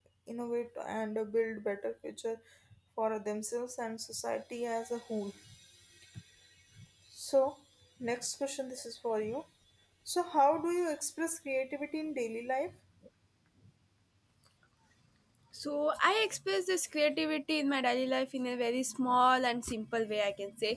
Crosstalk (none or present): none